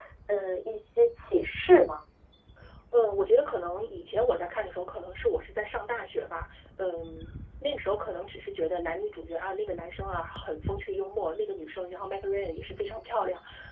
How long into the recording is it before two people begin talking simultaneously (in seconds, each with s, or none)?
none